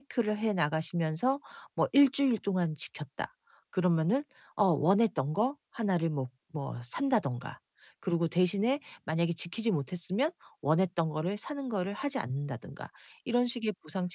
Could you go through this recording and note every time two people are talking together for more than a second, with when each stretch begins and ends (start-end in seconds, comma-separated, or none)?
none